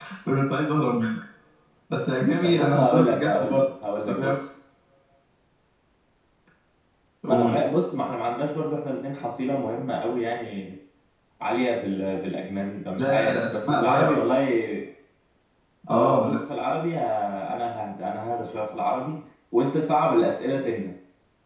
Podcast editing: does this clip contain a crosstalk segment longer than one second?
Yes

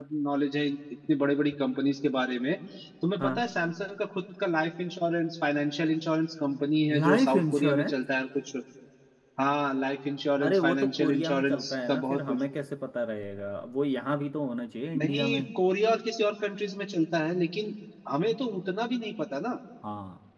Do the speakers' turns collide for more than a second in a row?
Yes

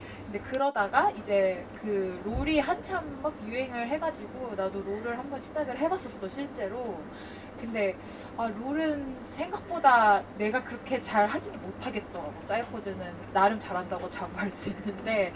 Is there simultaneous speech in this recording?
No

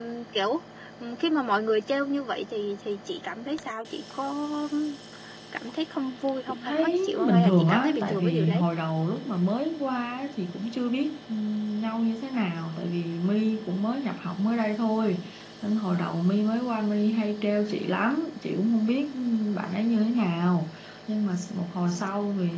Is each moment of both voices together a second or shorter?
No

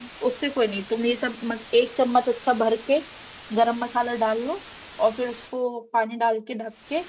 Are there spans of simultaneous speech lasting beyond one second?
No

